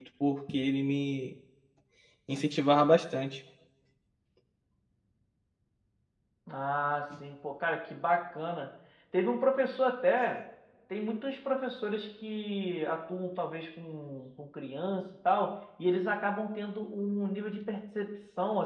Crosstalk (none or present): none